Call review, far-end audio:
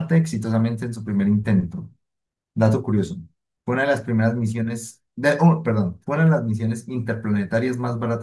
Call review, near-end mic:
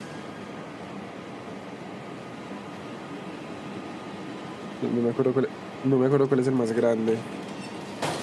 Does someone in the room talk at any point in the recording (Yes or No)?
Yes